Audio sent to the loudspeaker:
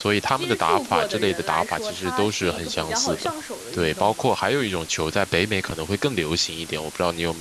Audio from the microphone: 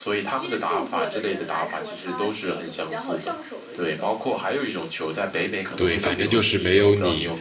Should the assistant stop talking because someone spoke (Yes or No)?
Yes